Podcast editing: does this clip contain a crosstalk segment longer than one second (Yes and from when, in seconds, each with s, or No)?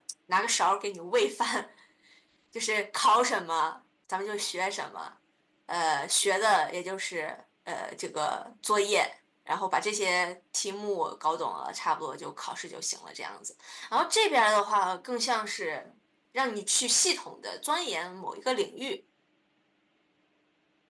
No